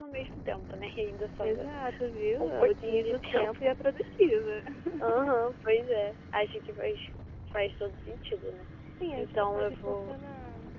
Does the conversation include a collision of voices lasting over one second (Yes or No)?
Yes